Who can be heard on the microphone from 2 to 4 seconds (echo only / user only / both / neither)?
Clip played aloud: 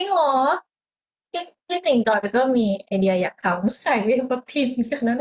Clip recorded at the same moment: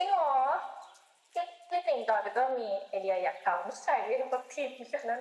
echo only